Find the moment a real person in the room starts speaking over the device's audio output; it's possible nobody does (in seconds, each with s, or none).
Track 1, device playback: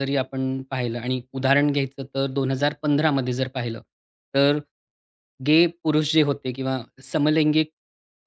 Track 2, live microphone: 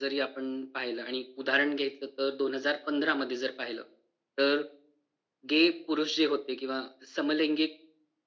none